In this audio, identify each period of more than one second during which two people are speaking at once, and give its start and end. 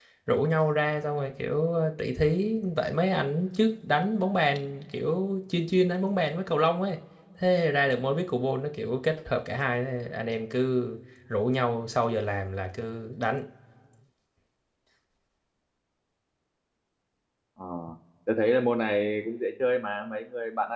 none

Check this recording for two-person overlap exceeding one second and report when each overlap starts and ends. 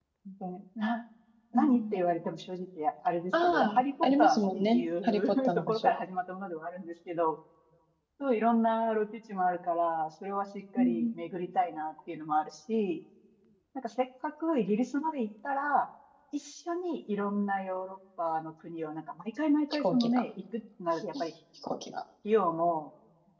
3.3-6.0

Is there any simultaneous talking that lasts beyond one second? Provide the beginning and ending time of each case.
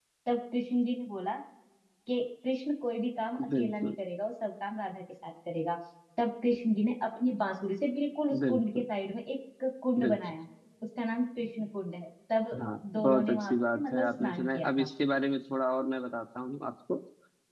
13.0-14.9

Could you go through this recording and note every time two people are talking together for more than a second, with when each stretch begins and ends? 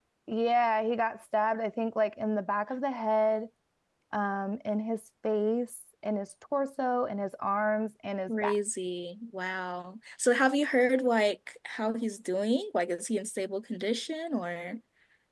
none

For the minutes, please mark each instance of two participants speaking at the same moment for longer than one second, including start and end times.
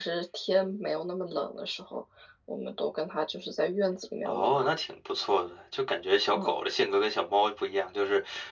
none

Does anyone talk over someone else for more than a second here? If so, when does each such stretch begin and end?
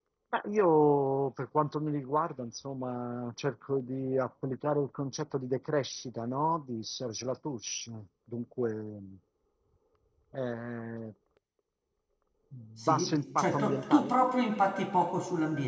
12.8-14.1

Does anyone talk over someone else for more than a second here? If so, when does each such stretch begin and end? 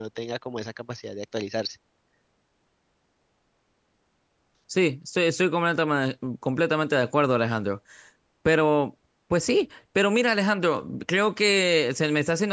none

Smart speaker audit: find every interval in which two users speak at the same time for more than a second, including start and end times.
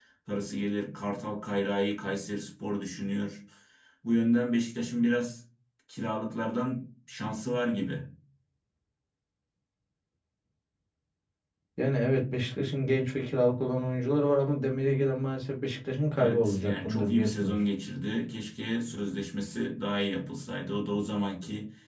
16.2-17.6

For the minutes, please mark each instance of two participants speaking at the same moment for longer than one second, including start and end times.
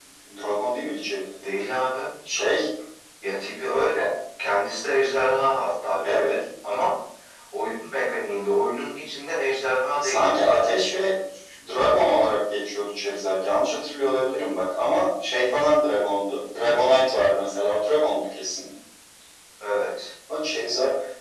none

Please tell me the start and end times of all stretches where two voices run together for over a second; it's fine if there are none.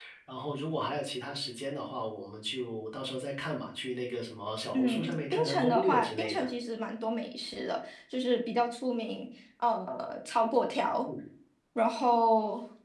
4.7-6.5

